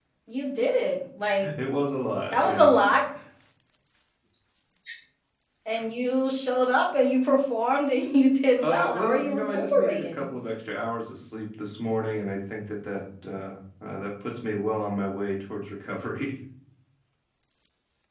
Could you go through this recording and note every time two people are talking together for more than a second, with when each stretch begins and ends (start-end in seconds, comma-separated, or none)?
8.6-10.2